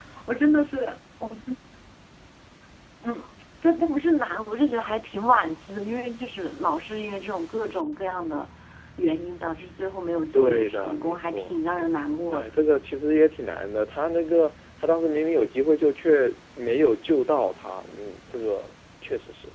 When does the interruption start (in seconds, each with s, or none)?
10.3 s